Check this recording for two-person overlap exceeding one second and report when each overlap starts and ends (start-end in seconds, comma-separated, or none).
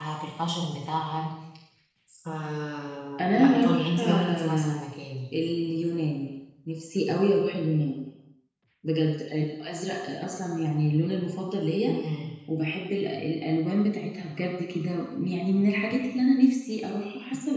3.4-4.8